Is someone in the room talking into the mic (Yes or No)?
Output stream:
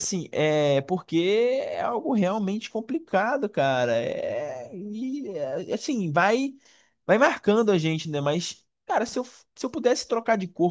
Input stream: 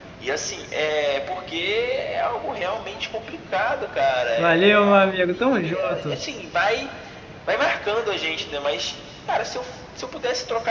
Yes